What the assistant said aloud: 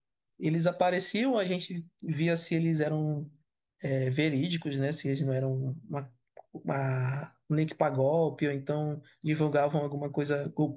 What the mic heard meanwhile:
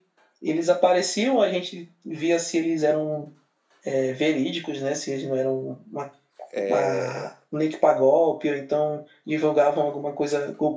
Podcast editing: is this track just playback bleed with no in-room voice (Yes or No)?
No